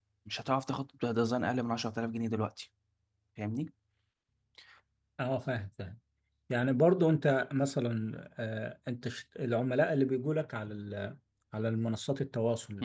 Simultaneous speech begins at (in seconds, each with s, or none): none